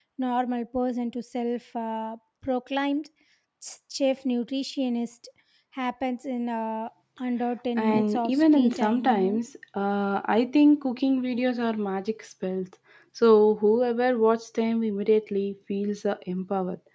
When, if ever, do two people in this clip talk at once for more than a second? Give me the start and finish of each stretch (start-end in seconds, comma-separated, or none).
7.8-9.3